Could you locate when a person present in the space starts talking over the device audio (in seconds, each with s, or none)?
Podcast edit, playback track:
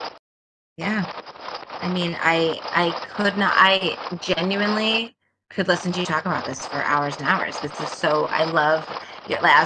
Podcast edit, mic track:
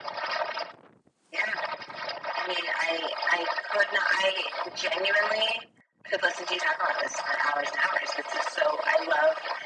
none